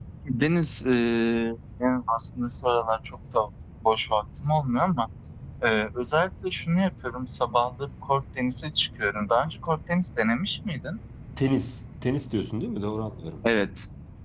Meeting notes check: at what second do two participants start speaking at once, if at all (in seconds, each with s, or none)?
none